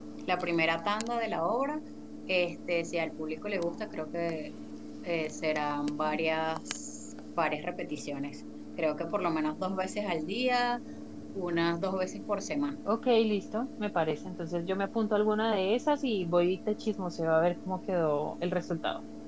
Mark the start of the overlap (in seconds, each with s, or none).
none